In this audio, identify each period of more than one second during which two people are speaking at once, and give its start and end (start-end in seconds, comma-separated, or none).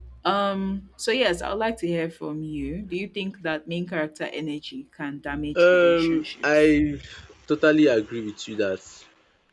5.5-6.8